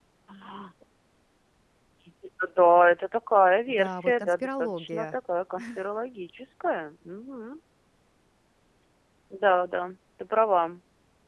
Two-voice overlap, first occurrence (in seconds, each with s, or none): 3.7 s